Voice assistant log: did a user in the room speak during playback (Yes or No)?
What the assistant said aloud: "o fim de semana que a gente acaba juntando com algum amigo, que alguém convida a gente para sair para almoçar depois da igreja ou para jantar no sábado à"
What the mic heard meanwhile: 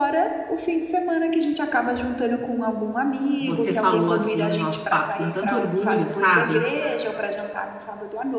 Yes